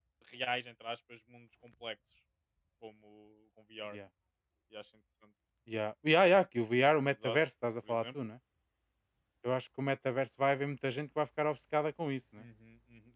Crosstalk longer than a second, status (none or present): none